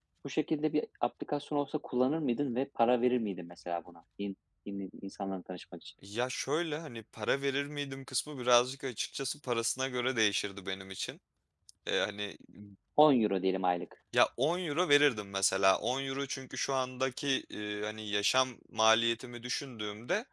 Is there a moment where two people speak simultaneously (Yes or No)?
No